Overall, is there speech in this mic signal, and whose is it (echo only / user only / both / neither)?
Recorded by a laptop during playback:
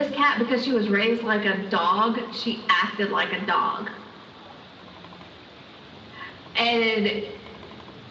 echo only